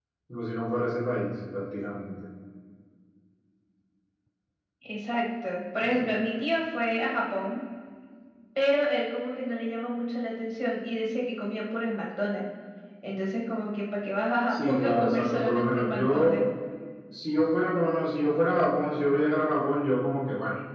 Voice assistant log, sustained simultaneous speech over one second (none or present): present